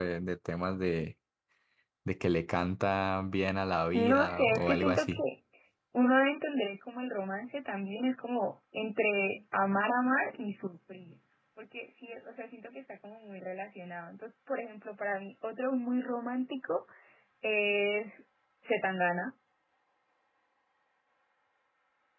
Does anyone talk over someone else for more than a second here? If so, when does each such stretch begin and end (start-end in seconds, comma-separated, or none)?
3.9-5.2